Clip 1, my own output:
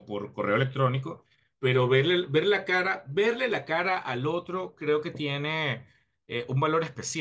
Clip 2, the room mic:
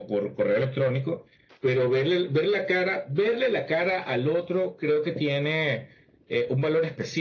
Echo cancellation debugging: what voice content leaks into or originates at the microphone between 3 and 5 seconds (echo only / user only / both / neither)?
echo only